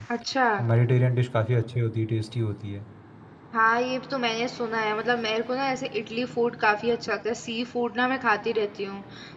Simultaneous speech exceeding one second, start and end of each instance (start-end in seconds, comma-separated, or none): none